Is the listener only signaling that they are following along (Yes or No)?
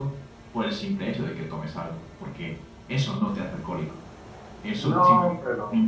Yes